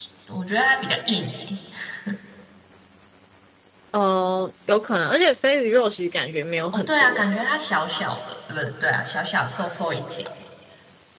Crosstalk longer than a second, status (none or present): none